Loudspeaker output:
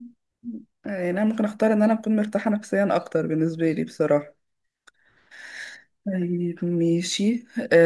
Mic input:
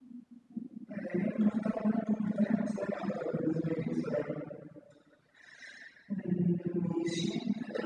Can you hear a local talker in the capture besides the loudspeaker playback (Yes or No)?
No